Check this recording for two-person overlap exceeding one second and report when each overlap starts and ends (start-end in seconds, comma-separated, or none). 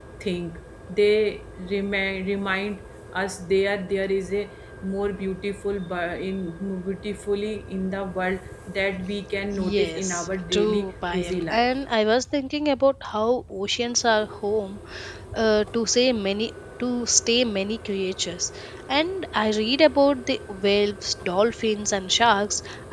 9.6-11.7